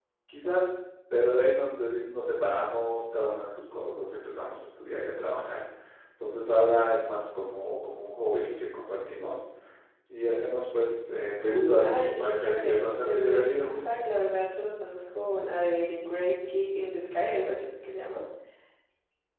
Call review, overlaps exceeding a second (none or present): present